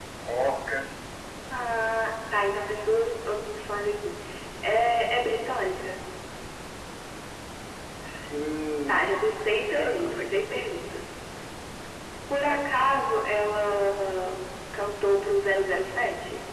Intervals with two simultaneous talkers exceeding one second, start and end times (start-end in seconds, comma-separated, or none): 8.9-10.2